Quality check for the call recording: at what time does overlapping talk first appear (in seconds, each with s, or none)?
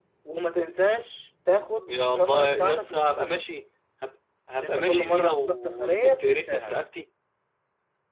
1.9 s